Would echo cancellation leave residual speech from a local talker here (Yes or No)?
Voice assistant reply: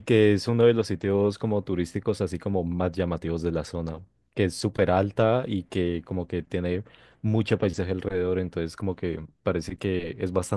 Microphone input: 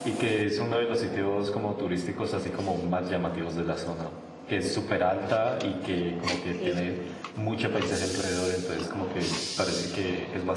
Yes